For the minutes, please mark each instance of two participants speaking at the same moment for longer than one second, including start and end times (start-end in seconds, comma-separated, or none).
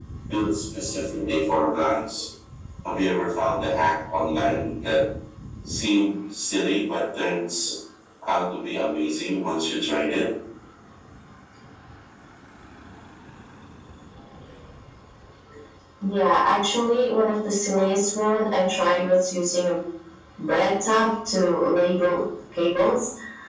none